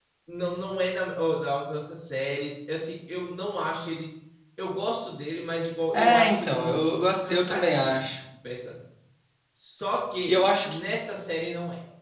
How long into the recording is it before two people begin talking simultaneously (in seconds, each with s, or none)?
5.9 s